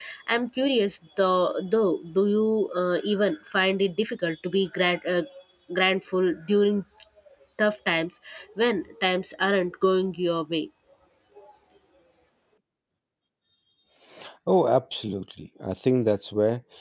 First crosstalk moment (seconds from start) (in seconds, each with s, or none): none